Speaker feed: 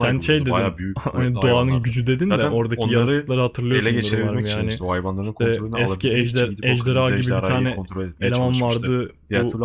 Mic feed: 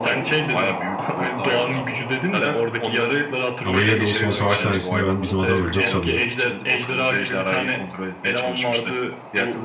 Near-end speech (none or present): present